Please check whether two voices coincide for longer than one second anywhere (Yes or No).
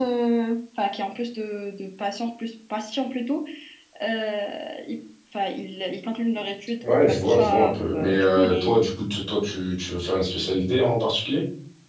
Yes